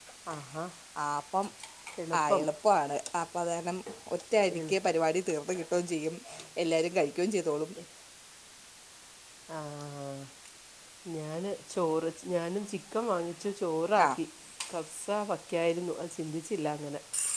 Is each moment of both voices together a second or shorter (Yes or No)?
Yes